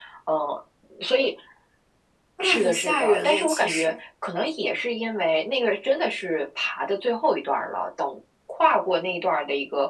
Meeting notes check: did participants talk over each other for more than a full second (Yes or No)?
Yes